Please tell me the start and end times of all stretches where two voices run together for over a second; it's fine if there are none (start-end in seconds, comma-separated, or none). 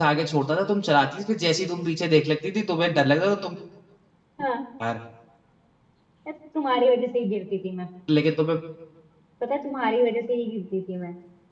none